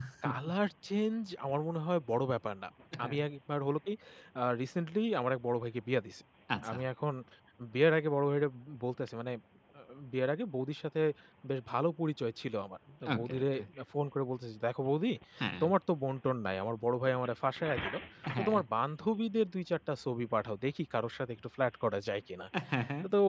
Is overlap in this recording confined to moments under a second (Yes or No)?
Yes